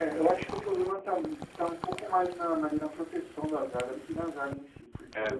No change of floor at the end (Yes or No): Yes